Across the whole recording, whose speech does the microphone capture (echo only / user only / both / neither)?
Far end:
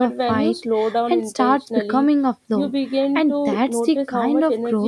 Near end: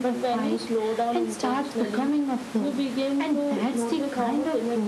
echo only